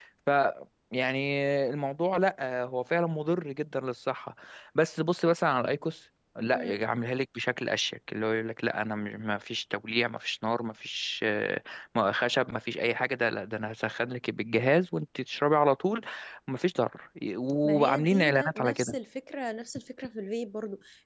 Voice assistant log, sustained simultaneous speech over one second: present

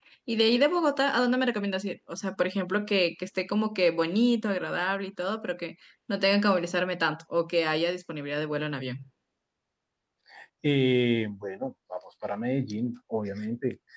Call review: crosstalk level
none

